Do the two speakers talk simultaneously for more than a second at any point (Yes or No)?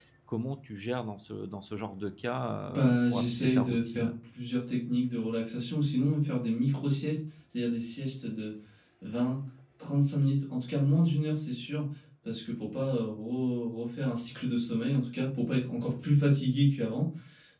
Yes